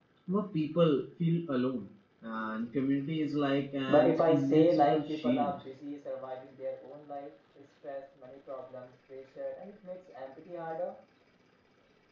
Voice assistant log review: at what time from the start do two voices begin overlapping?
3.9 s

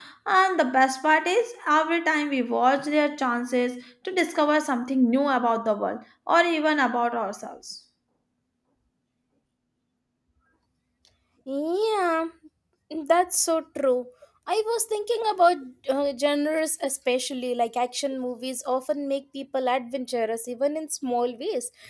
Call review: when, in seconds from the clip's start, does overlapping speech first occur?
none

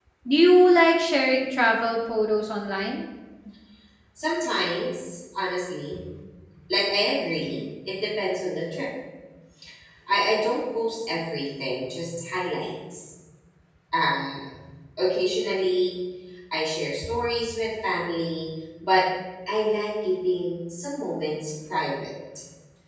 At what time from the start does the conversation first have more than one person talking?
none

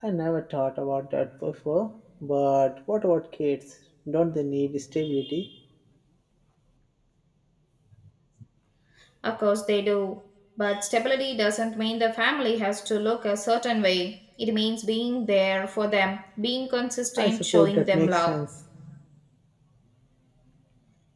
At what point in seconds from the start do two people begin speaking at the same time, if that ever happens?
17.2 s

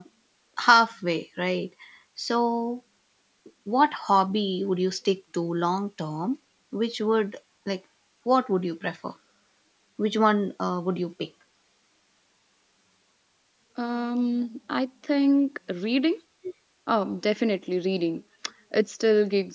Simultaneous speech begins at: none

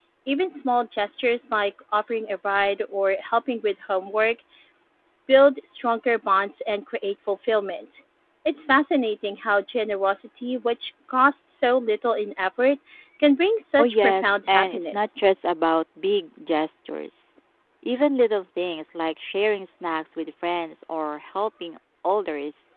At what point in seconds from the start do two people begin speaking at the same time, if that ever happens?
13.8 s

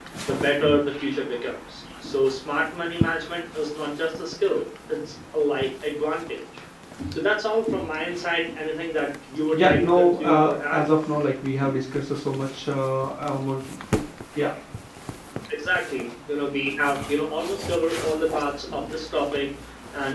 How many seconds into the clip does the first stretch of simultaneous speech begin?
9.5 s

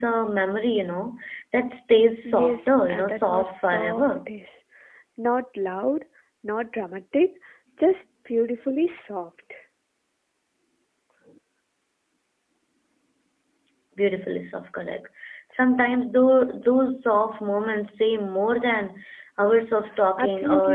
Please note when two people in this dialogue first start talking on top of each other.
2.2 s

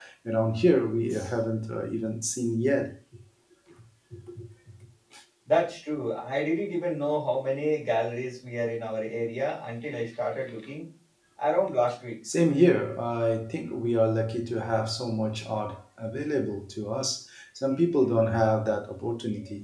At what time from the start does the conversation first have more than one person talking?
none

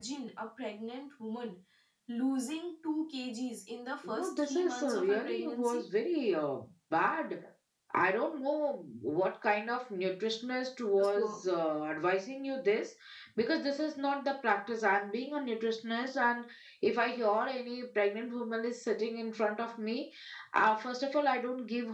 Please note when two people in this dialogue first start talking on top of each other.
4.0 s

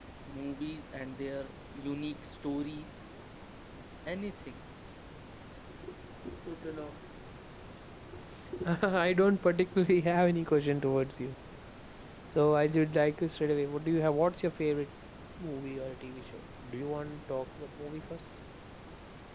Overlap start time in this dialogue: none

